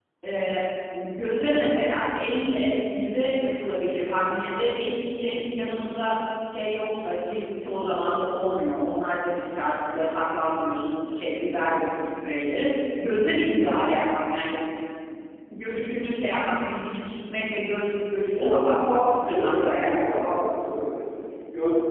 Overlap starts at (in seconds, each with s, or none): 18.3 s